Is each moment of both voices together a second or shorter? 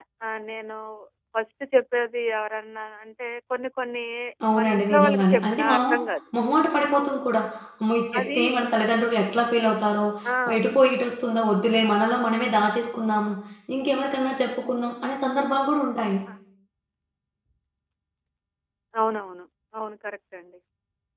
No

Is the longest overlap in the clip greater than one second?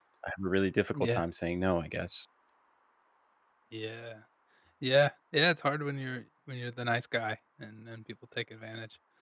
No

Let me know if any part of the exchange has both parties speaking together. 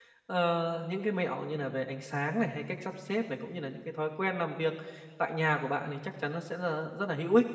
No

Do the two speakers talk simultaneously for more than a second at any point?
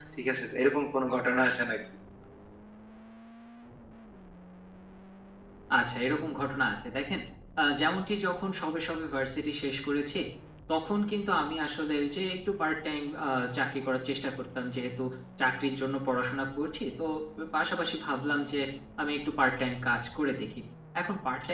No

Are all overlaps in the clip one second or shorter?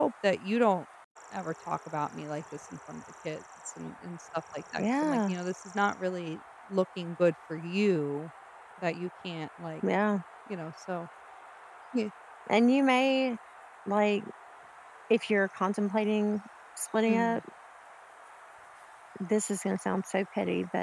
Yes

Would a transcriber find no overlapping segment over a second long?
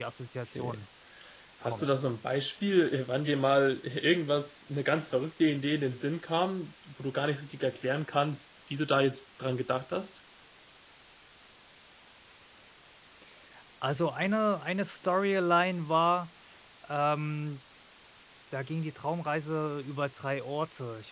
Yes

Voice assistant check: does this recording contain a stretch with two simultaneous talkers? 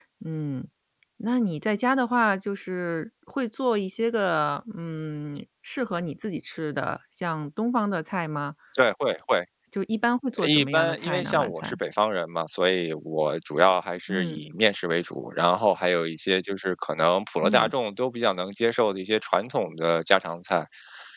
Yes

